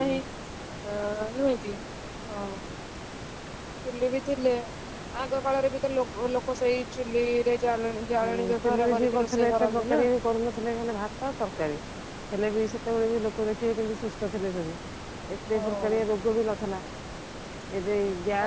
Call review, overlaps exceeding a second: present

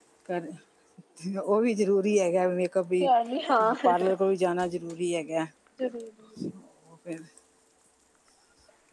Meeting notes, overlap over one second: none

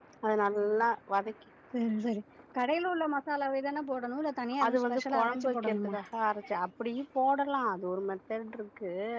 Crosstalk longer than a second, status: present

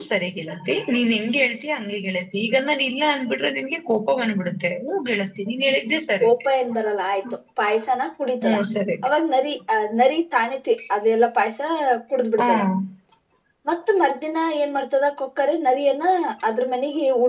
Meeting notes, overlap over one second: none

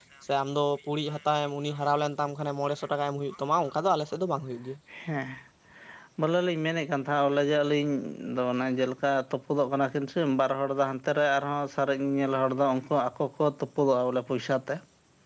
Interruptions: none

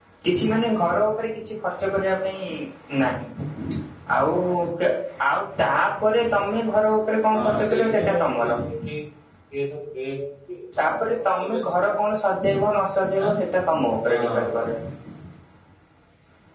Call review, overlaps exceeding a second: present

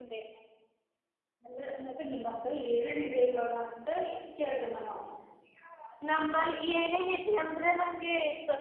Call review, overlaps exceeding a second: none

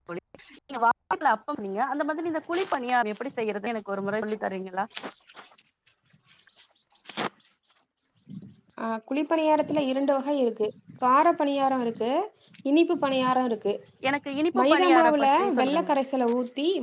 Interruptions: present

